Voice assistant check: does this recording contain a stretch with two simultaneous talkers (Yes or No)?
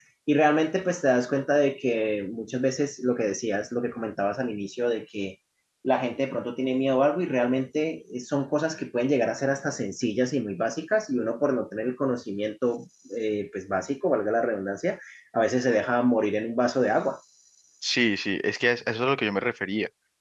No